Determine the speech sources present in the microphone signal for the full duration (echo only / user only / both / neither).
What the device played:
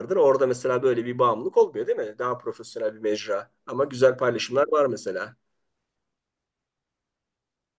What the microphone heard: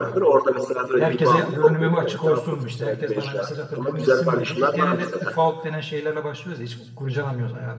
both